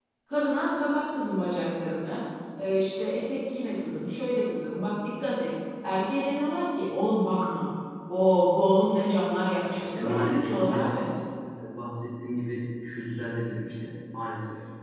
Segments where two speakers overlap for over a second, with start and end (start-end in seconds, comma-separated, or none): 9.8-11.1